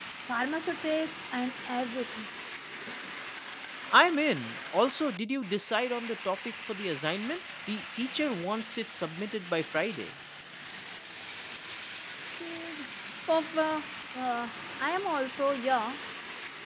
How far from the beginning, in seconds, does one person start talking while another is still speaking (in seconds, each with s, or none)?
none